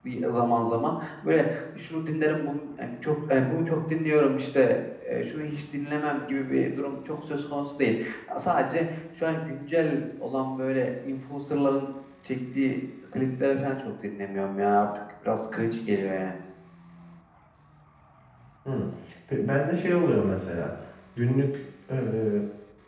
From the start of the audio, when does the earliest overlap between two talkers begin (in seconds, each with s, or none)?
none